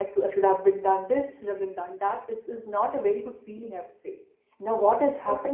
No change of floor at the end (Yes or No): Yes